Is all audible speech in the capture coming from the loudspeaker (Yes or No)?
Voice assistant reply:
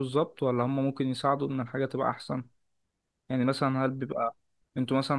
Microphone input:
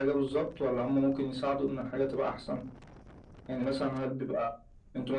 Yes